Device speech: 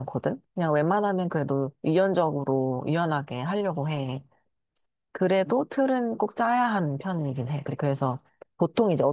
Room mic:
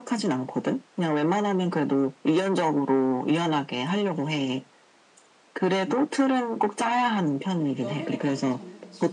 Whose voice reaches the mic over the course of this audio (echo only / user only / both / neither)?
both